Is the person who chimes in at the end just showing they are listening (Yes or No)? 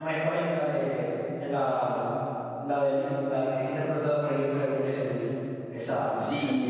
No